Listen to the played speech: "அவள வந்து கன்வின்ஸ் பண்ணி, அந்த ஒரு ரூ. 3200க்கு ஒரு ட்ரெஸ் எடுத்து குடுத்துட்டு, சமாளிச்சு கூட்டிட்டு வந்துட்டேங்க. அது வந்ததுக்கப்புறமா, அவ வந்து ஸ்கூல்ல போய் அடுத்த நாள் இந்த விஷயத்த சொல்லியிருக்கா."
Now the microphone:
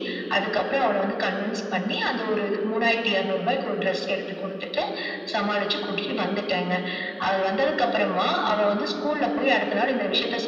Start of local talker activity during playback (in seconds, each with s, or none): none